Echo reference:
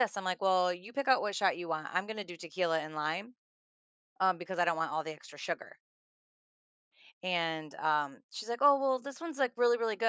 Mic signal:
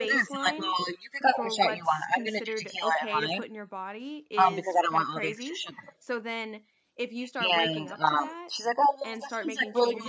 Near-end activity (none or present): present